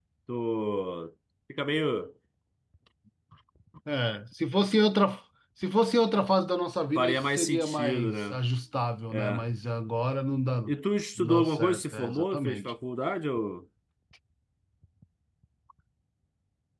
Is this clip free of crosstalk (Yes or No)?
No